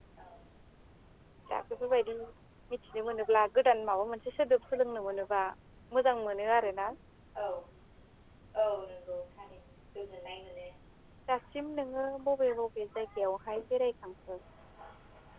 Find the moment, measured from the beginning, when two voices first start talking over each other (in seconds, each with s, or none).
none